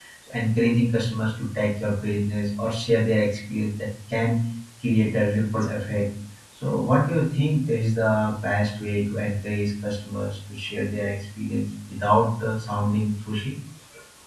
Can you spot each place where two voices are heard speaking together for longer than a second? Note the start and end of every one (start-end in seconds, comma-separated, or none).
none